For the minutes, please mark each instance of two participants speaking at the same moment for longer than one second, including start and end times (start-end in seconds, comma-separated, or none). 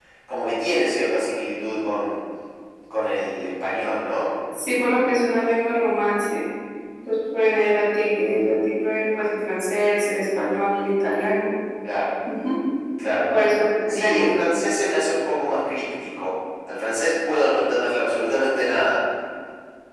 none